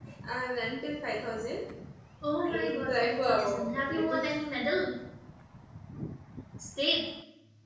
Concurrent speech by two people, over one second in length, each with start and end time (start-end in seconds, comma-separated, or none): 2.5-4.2